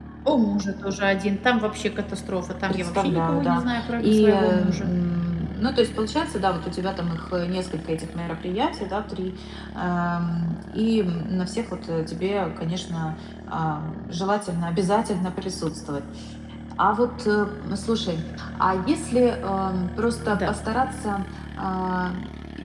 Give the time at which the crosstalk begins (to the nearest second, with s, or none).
3 s